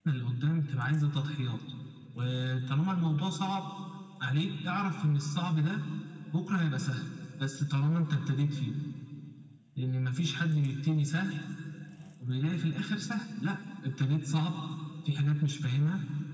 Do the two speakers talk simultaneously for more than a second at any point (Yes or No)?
No